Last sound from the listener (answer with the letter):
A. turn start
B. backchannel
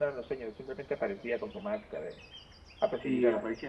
A